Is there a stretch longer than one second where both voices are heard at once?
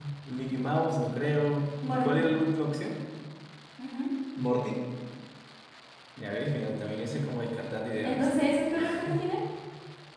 No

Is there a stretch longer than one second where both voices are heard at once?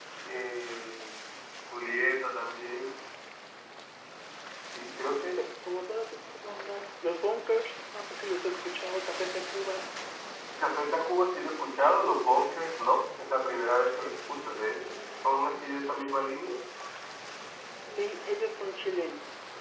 No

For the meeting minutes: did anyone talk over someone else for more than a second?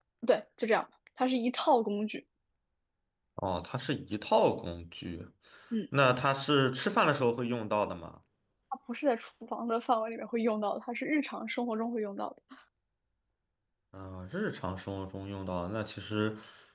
No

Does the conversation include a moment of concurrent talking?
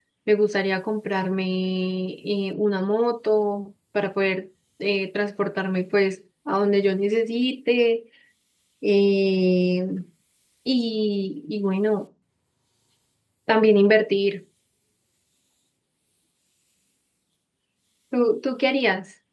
No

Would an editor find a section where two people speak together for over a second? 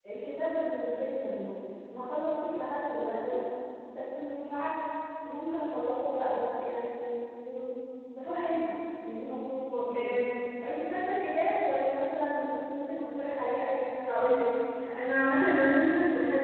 No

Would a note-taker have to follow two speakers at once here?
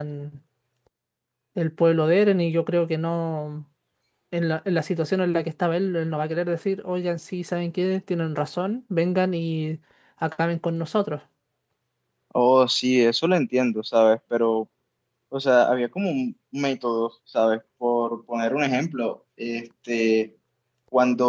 No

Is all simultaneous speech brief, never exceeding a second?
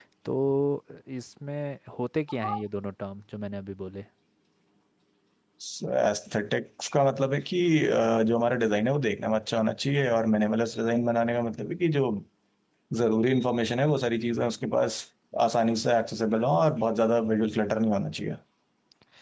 Yes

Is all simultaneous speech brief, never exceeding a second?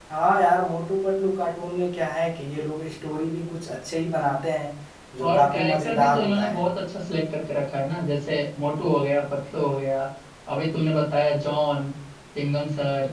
No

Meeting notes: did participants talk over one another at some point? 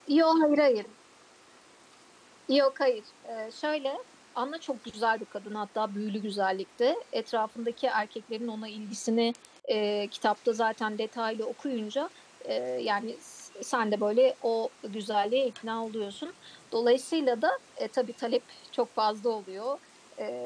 No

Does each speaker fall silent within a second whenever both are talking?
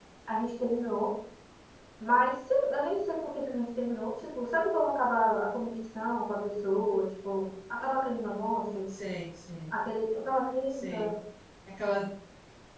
Yes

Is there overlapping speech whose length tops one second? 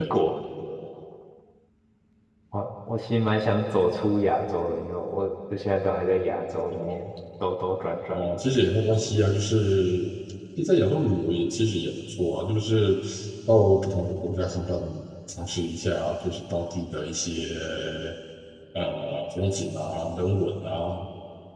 No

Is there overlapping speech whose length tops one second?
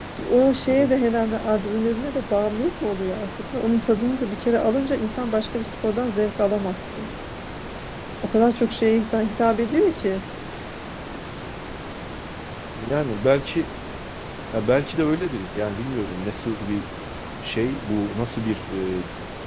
No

